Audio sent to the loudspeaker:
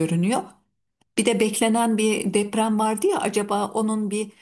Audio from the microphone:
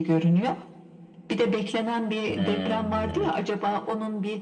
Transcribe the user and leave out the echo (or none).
Hmm.